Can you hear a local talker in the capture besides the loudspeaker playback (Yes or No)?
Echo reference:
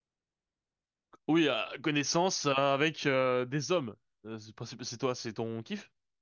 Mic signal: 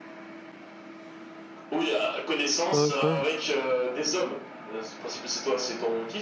Yes